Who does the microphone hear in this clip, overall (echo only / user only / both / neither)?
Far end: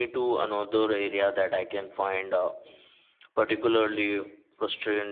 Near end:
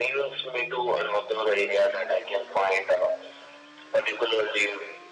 echo only